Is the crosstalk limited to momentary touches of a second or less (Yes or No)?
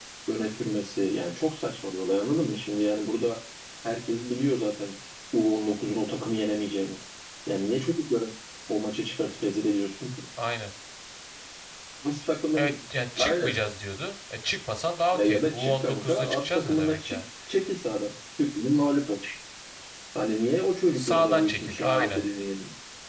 No